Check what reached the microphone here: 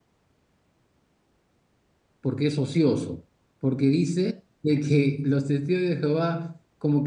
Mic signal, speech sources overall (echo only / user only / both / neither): user only